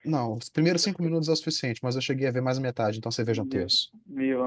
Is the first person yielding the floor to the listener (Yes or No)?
Yes